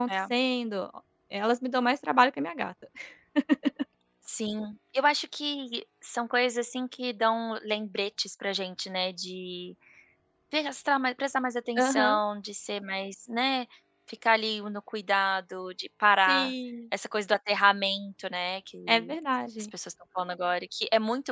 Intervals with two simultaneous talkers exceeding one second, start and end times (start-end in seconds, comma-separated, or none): none